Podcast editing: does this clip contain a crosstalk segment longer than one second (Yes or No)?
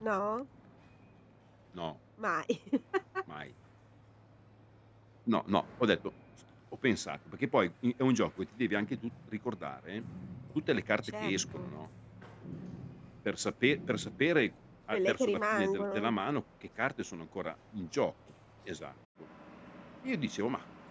Yes